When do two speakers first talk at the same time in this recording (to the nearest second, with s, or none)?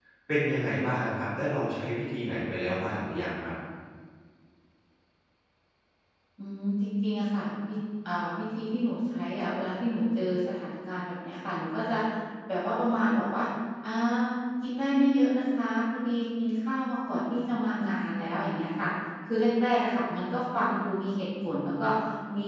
none